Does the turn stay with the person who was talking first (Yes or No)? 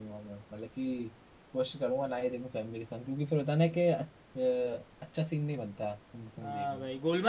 No